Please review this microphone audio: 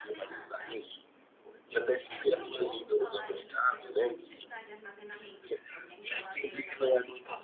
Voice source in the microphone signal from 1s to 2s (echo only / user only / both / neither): both